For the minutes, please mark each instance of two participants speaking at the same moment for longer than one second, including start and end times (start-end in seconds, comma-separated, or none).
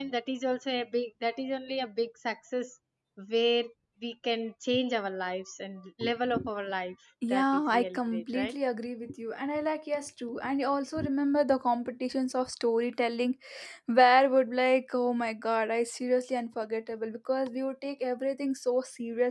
7.3-8.5